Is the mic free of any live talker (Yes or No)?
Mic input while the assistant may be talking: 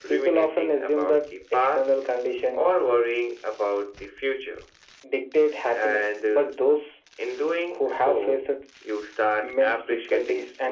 Yes